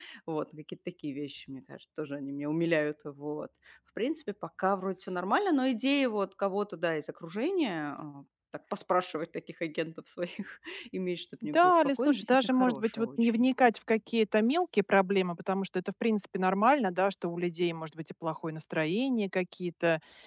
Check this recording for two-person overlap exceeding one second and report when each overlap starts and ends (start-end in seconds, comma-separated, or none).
11.4-13.4